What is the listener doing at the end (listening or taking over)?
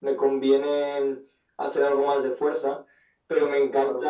listening